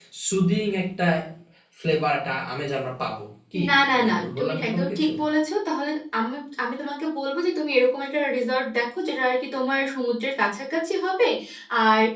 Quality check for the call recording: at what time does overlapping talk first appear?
3.5 s

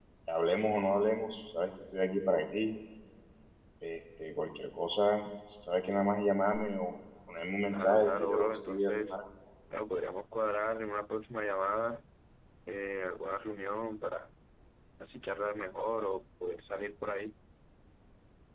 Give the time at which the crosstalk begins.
7.7 s

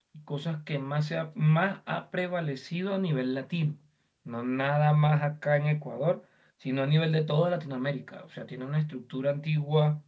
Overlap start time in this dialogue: none

